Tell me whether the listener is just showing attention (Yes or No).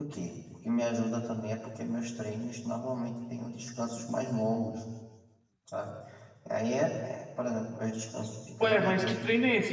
No